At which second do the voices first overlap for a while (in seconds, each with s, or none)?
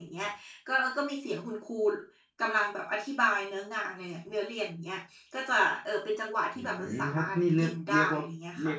6.5 s